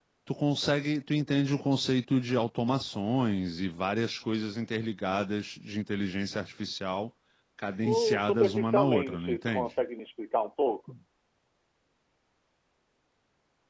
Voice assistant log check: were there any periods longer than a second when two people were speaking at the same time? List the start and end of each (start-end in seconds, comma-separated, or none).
7.8-9.7